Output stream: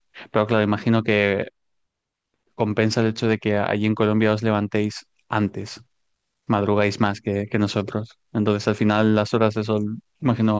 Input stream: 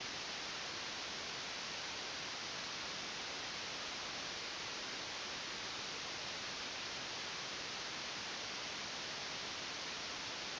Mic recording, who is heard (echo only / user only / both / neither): neither